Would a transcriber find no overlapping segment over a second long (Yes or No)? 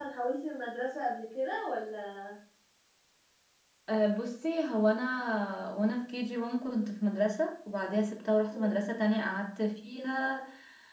Yes